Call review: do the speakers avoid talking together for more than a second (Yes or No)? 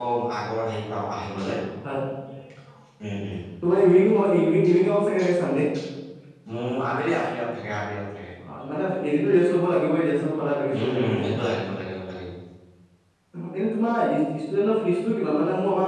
Yes